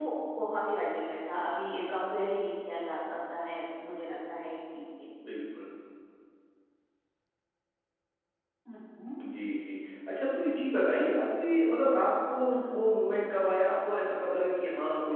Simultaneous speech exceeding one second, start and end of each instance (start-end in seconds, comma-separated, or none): none